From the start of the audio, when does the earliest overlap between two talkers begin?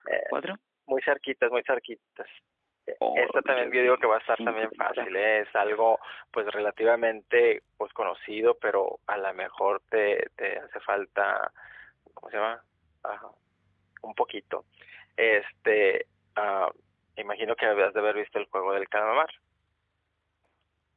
3.1 s

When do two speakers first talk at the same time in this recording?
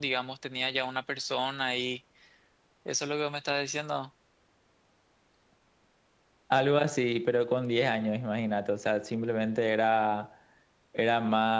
none

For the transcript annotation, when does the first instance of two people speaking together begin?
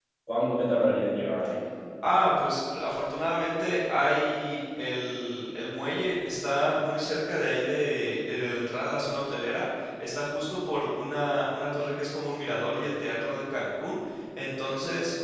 none

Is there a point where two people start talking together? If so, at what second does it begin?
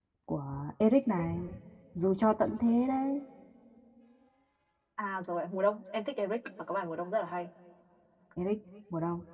none

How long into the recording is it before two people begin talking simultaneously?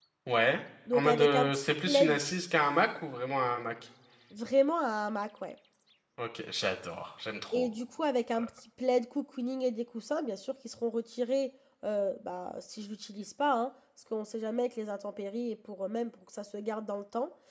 0.9 s

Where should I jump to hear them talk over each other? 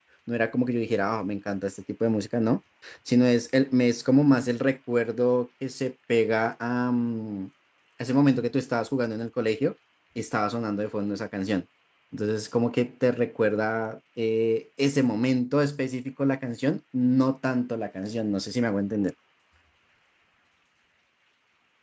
none

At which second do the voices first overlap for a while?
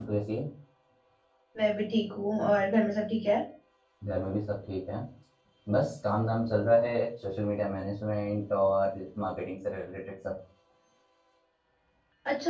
none

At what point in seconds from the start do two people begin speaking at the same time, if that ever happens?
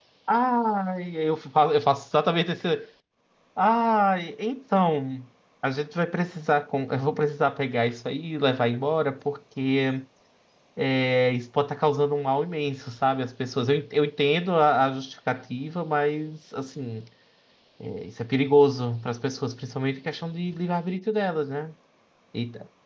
none

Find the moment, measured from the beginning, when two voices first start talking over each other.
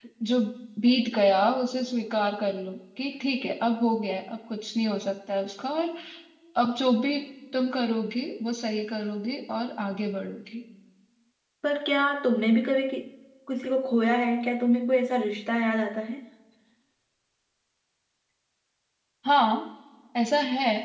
none

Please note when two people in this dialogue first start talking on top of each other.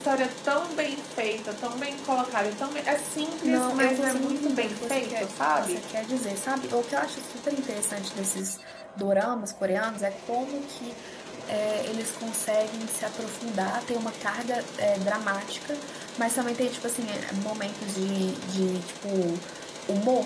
3.4 s

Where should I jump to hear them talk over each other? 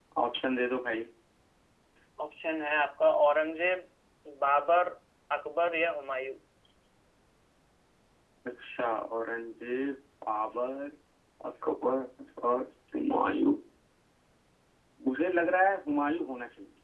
none

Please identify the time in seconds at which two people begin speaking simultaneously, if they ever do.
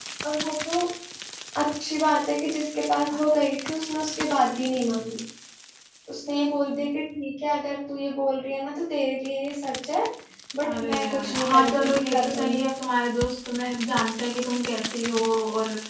10.6 s

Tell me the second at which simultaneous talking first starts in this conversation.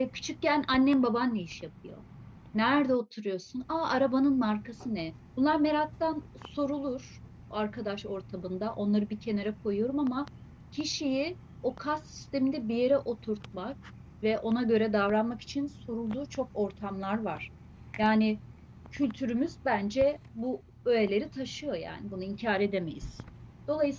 none

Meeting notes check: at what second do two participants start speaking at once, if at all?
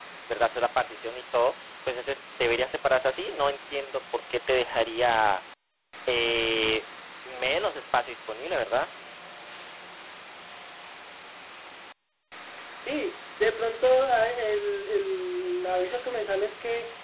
none

